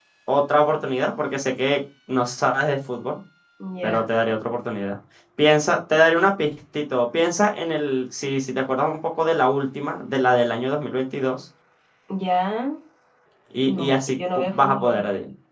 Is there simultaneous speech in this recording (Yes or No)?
Yes